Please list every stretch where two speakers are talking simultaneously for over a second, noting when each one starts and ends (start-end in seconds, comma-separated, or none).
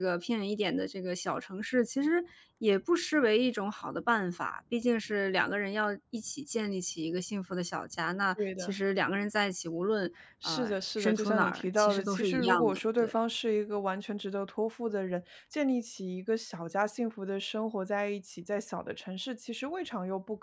10.4-13.2